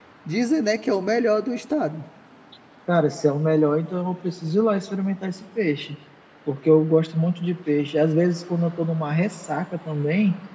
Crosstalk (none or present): none